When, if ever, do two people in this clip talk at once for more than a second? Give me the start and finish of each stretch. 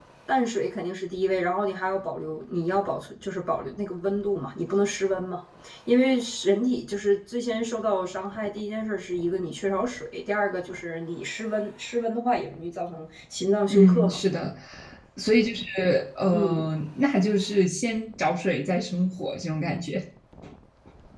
none

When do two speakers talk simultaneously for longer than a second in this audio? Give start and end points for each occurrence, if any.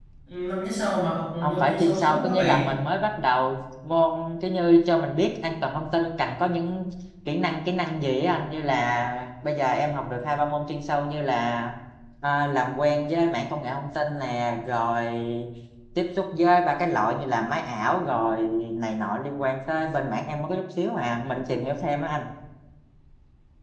1.4-2.7

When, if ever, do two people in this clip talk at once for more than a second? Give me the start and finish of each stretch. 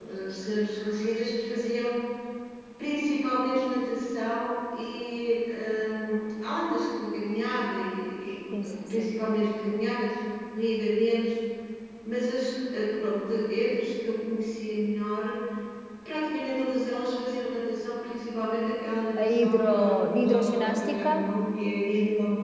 19.2-21.3

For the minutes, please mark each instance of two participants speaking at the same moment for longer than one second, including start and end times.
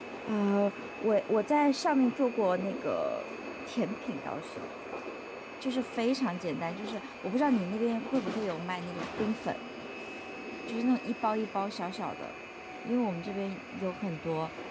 none

